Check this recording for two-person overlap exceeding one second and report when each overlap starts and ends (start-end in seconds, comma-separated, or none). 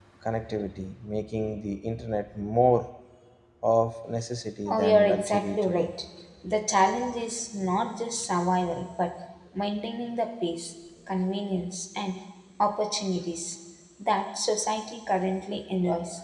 4.7-5.9